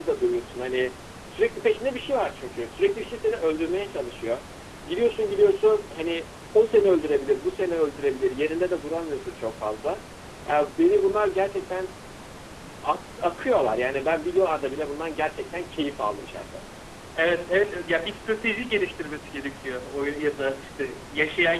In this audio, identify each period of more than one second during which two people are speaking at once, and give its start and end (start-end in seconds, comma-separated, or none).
none